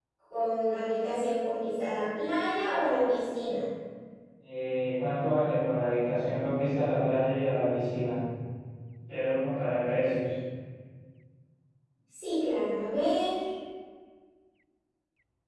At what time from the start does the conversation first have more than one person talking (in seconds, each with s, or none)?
none